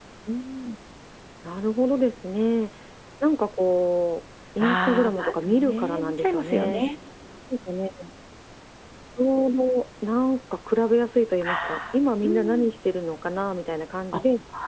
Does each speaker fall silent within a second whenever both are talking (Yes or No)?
No